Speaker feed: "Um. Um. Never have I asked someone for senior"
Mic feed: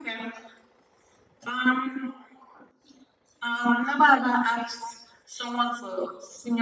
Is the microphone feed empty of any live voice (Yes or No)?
Yes